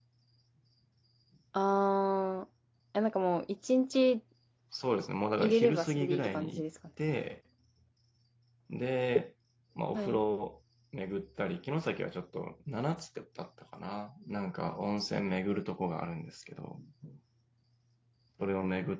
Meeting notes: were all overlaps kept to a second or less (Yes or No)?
No